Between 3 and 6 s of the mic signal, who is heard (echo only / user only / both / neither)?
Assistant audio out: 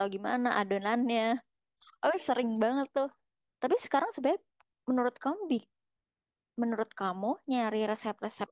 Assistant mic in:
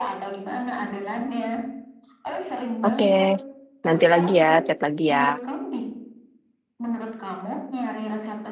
both